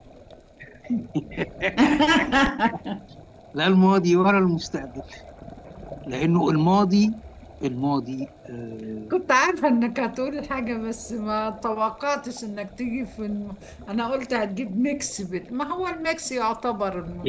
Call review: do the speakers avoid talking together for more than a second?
Yes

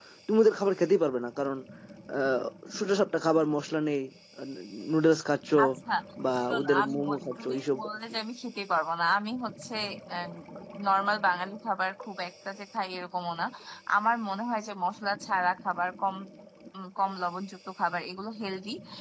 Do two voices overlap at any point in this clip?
Yes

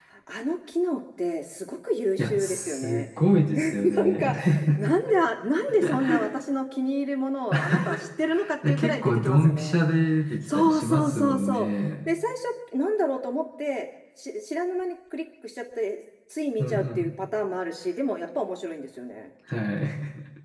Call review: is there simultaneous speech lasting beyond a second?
Yes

